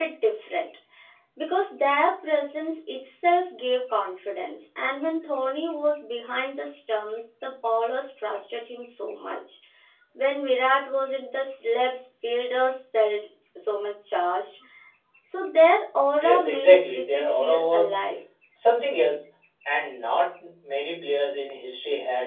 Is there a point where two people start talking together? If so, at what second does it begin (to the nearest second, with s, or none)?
16 s